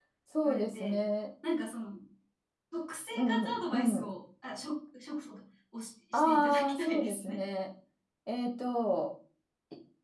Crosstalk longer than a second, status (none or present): present